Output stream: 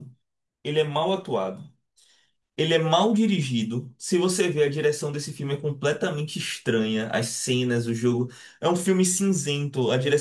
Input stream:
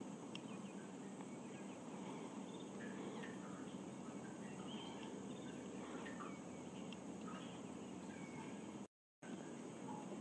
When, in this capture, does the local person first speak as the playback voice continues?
none

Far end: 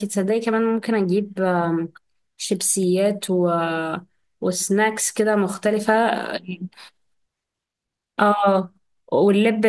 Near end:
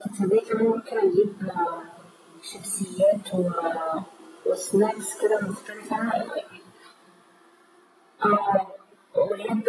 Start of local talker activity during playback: none

